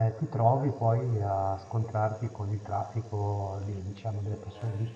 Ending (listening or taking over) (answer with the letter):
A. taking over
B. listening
B